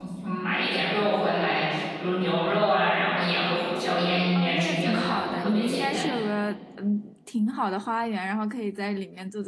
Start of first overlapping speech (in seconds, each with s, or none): 4.3 s